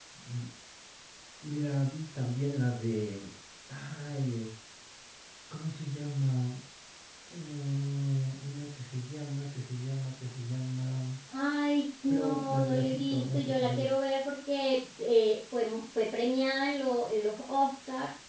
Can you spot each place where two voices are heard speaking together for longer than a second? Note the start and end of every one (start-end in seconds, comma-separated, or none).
12.1-13.9